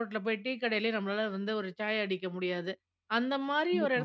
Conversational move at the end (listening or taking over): listening